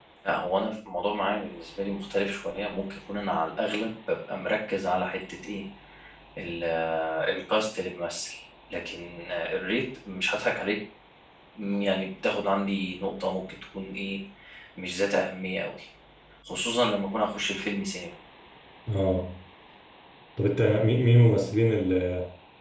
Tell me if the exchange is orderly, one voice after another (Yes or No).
Yes